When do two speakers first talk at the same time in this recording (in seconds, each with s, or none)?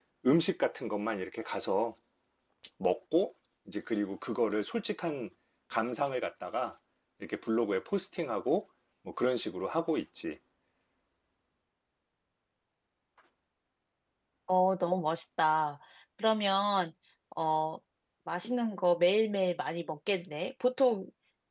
none